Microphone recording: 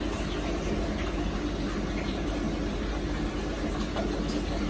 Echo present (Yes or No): No